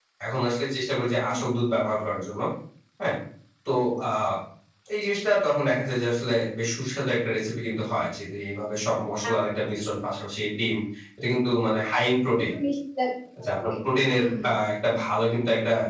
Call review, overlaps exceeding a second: none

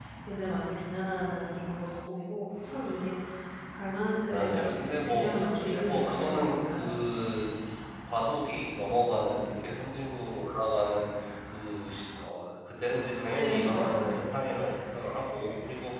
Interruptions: present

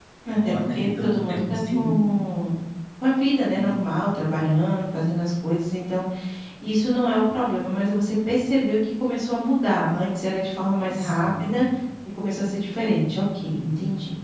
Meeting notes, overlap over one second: present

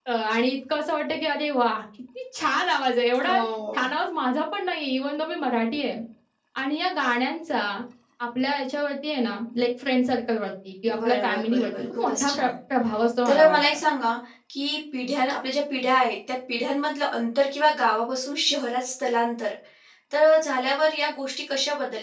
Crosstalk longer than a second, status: present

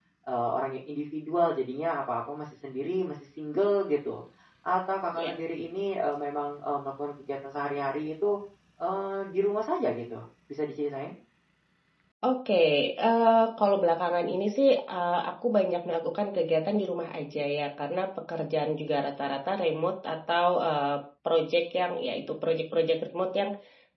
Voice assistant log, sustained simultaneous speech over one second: none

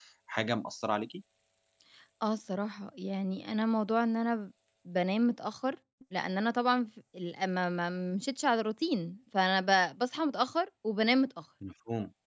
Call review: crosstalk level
none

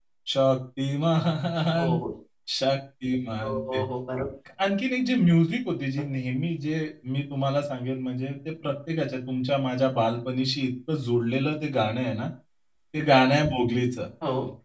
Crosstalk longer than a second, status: none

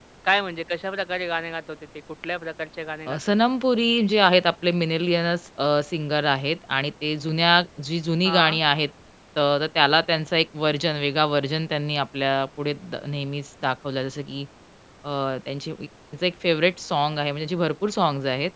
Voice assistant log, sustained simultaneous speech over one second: none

